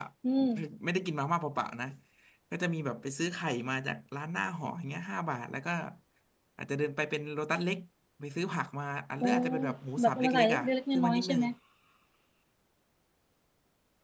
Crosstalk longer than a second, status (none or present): present